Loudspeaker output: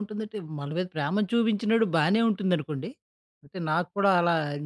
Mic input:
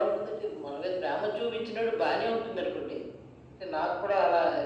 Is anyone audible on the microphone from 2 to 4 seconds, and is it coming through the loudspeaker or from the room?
echo only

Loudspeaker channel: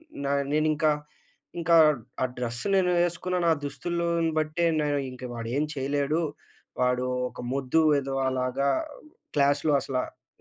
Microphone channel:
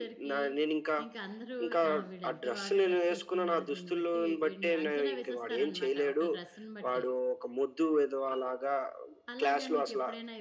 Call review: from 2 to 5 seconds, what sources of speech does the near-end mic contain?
both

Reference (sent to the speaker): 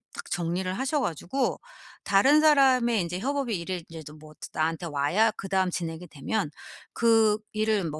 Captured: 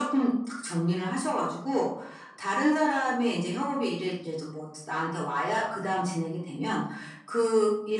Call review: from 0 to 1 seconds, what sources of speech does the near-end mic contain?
echo only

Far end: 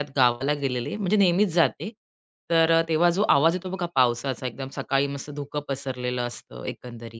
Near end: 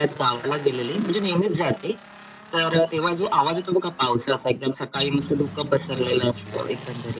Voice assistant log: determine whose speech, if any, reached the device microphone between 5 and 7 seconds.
echo only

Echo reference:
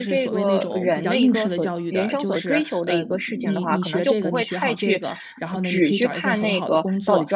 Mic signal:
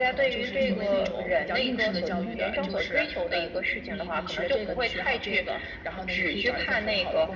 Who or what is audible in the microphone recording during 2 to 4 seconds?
both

